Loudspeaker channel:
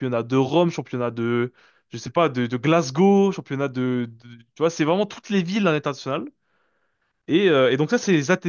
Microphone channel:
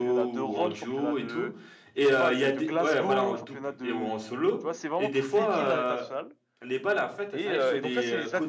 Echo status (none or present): present